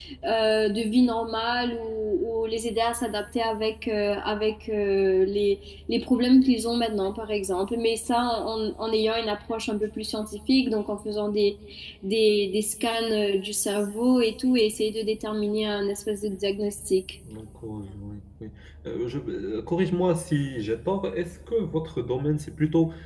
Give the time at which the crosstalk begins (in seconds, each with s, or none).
none